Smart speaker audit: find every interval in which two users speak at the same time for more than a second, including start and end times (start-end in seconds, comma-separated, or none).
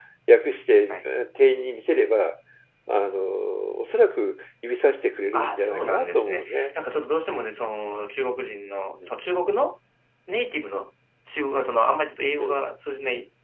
5.3-6.8